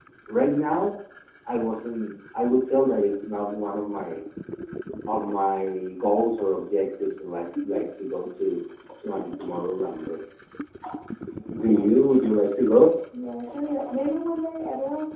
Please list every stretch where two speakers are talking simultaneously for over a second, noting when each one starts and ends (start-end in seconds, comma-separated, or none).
none